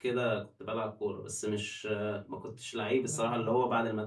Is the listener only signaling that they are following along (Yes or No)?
Yes